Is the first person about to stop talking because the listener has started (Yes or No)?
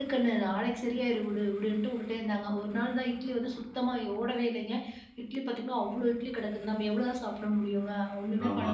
No